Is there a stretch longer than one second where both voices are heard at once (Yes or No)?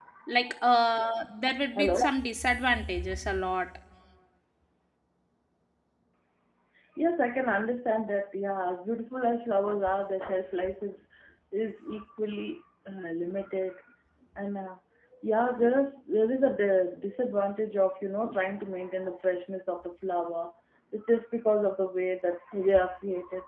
No